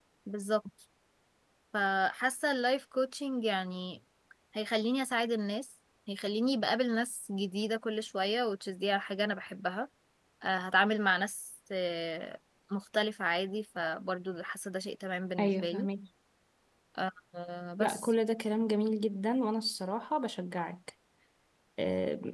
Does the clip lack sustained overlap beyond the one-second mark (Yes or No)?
Yes